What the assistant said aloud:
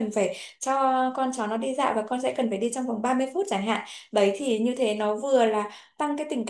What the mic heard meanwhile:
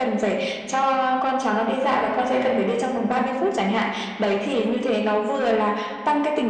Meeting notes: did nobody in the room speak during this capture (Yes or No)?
Yes